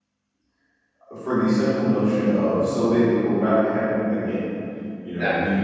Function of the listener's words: listening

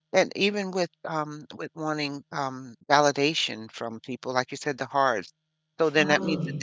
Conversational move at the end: listening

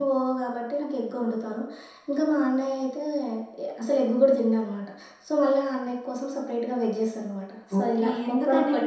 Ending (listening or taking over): taking over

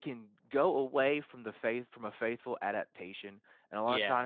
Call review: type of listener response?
listening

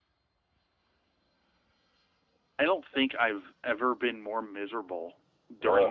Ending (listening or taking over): listening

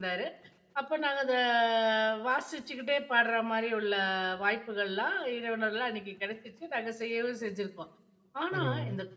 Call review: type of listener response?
listening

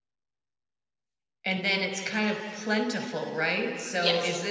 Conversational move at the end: listening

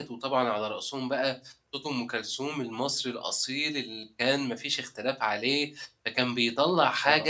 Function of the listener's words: listening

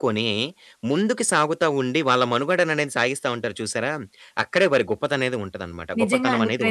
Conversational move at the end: taking over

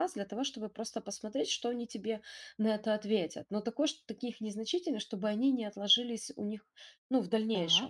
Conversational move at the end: listening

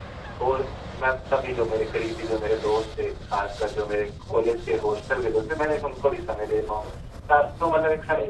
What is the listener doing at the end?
listening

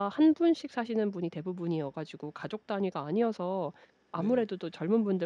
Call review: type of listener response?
listening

